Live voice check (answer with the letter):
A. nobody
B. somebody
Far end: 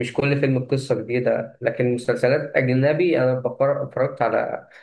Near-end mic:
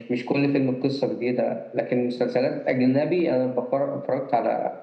A